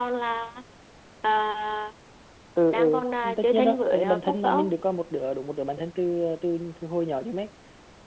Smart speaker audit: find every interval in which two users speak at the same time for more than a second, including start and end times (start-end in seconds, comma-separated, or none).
3.4-4.7